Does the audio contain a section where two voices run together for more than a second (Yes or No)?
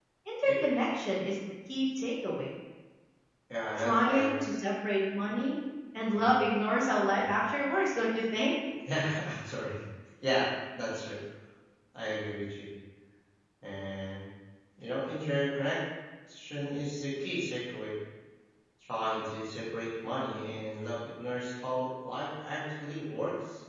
No